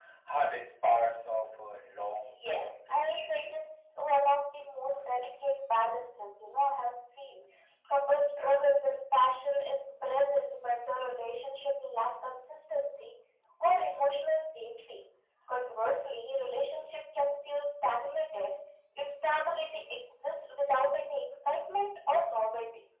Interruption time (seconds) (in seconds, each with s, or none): 2.2 s